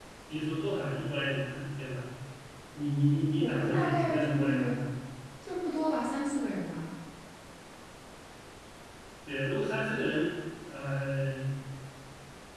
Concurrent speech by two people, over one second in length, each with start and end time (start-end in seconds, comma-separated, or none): 3.4-4.8